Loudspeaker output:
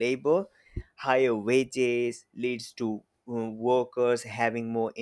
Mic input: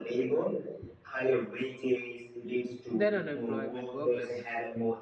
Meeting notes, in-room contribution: present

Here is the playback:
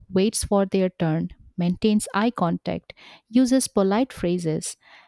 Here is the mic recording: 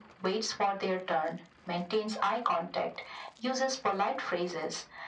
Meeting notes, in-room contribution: none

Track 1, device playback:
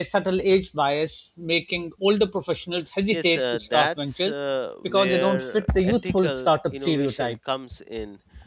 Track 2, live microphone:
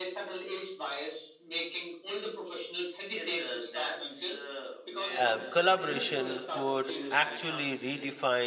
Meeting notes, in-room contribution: present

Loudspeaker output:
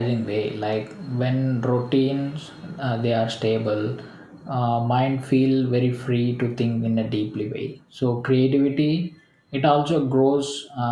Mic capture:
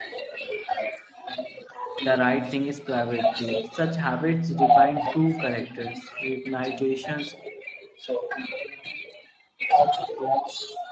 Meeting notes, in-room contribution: present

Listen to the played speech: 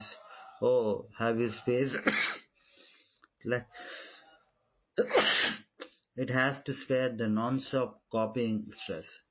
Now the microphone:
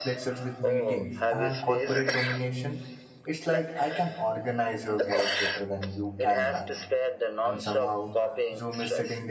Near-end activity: present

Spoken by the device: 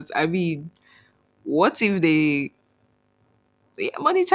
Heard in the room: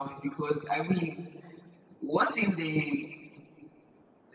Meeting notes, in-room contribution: none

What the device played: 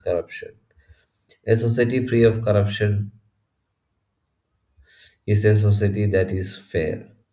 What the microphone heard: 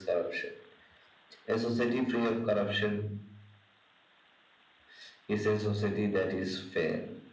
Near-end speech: none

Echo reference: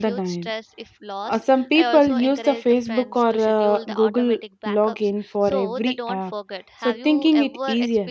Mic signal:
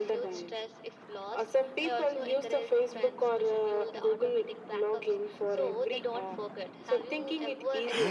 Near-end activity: none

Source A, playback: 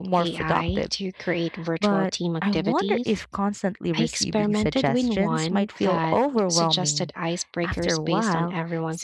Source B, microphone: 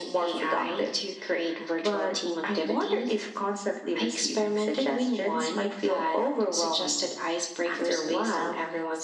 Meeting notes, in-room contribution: none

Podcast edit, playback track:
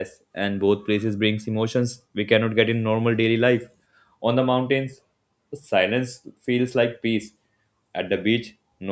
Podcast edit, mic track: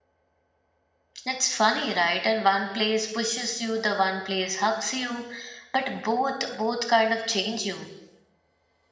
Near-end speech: present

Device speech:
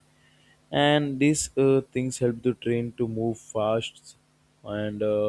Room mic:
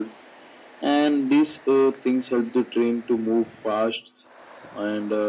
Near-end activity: none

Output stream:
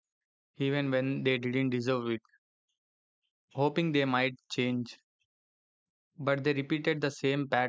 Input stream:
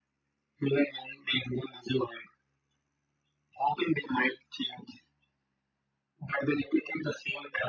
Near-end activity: none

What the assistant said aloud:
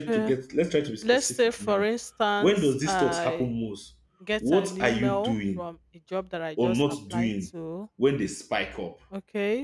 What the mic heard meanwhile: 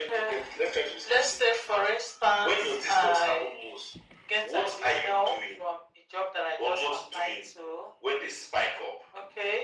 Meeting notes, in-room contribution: none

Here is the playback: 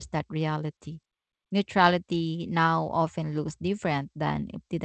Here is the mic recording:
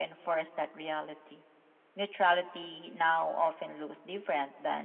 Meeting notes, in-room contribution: none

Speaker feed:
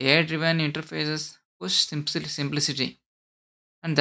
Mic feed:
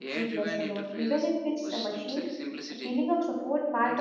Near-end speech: present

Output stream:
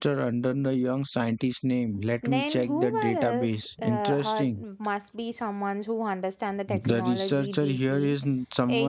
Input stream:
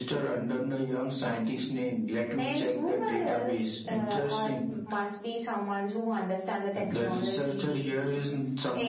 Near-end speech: none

